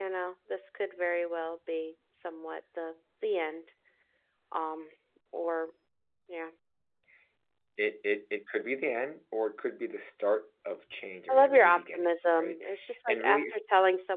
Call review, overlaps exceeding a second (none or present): present